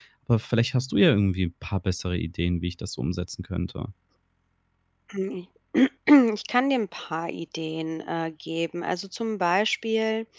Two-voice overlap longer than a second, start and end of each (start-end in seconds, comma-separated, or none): none